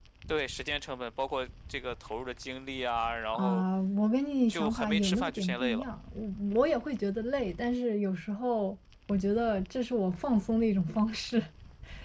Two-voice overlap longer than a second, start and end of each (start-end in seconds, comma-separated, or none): 4.5-5.9